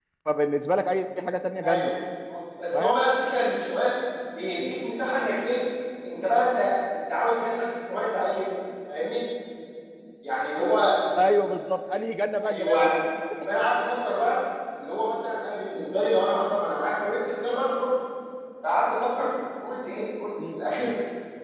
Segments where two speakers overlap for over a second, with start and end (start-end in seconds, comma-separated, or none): none